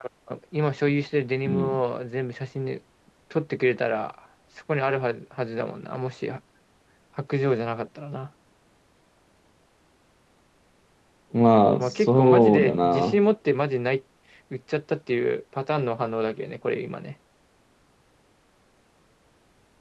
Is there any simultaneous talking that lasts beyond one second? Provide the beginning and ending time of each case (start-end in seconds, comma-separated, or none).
11.8-13.2